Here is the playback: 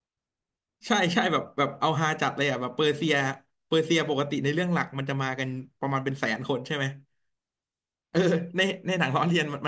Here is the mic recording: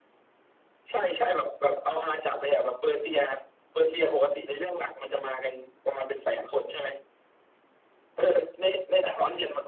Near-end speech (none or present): none